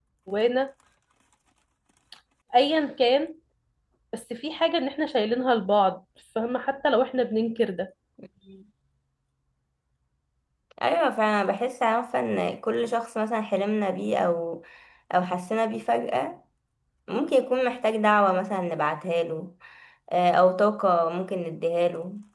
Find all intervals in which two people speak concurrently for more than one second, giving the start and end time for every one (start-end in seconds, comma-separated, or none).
none